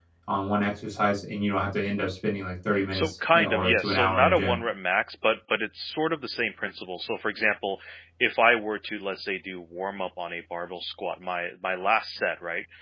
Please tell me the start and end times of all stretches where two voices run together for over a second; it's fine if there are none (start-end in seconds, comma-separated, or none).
2.9-4.6